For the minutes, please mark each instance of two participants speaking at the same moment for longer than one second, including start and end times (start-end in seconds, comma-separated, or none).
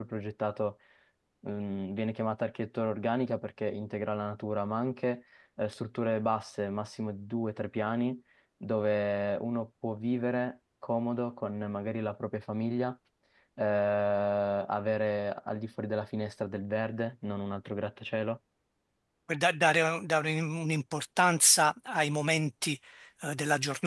none